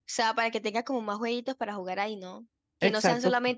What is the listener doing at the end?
listening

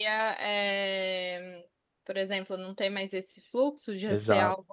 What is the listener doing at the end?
taking over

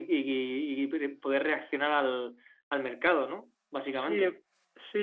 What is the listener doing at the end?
taking over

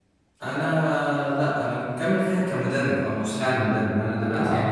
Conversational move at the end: listening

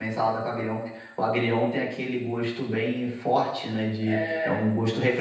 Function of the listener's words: listening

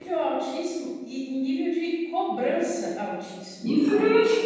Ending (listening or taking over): taking over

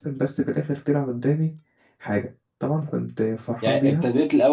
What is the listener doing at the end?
taking over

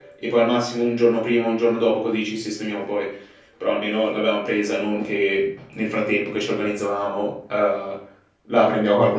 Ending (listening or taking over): taking over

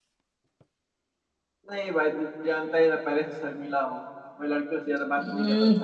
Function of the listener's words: taking over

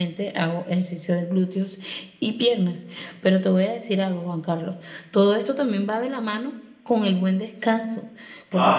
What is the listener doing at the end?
listening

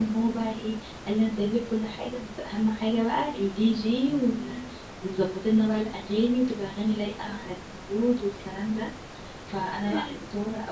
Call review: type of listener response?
listening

